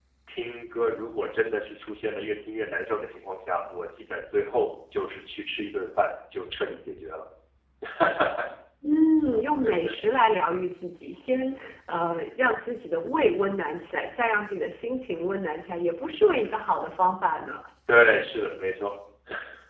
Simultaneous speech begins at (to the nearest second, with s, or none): none